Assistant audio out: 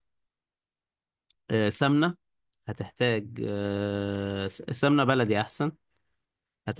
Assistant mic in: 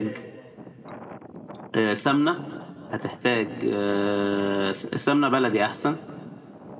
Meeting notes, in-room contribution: none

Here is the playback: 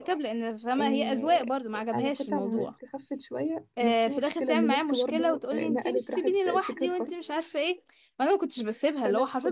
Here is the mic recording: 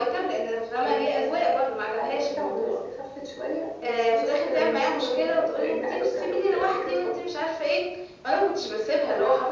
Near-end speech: none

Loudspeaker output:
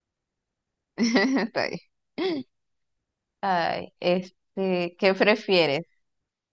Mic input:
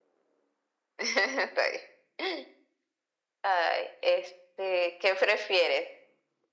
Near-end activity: none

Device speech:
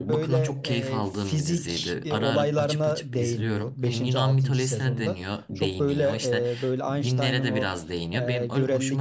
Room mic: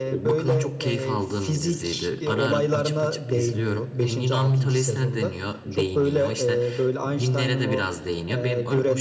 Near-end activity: none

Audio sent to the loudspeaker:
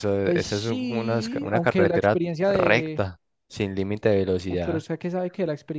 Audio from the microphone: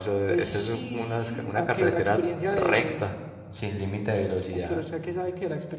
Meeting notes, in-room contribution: none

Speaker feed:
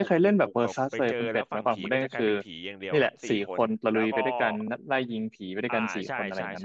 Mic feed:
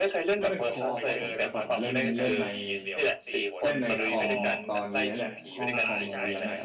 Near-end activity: present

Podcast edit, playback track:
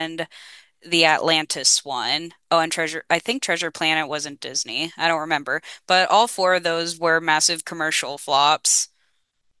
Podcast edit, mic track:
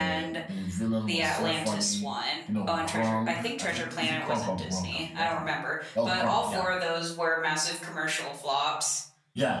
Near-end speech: present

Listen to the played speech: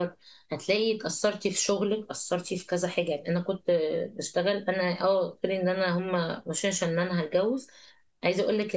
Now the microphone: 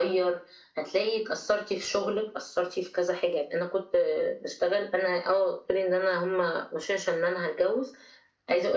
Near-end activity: none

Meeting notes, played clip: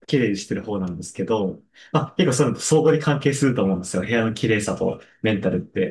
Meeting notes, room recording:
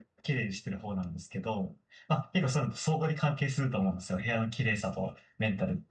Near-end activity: none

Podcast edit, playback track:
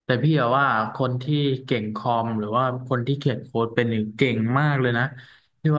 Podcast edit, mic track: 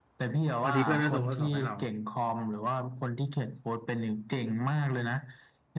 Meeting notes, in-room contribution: present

